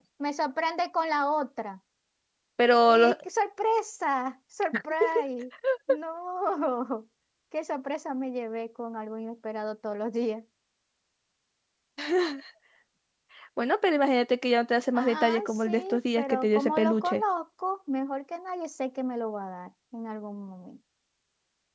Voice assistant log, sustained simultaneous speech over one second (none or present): present